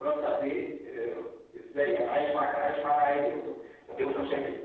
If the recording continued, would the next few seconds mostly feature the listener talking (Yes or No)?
Yes